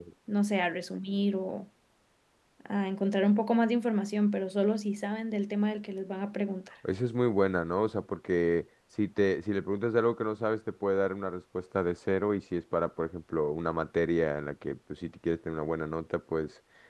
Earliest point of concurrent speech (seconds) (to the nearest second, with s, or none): none